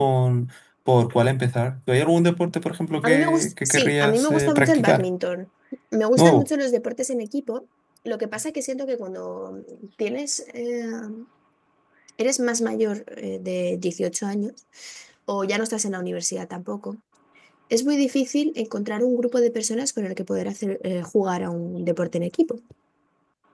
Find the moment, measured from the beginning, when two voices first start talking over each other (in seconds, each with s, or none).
3.0 s